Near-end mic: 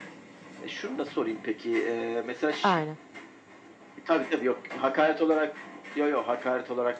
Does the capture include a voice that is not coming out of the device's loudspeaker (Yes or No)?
Yes